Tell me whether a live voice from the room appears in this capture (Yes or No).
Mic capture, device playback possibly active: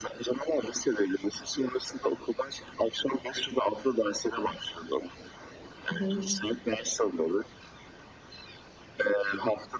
Yes